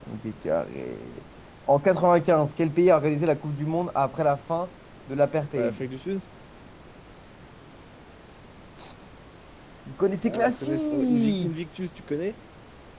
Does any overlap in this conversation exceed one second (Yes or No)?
Yes